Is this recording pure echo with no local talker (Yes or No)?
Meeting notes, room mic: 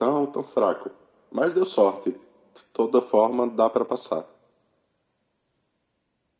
Yes